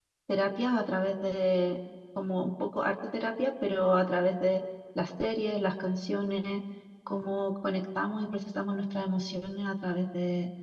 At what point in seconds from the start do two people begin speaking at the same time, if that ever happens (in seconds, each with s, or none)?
none